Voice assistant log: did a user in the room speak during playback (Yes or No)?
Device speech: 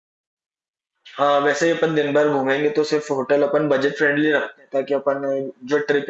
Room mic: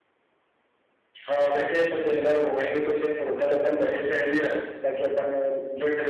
No